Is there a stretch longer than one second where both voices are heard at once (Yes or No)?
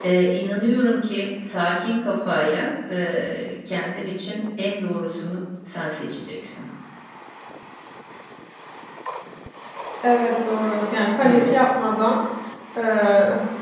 No